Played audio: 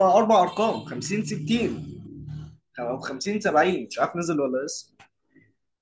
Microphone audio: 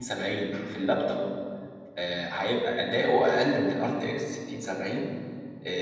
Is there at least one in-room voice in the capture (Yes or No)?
Yes